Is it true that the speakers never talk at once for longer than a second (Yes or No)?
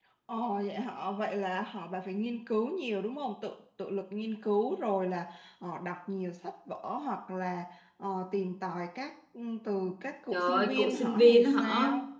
No